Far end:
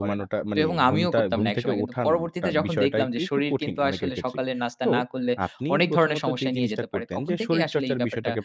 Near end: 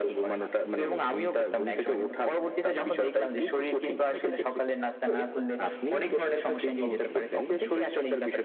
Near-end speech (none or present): present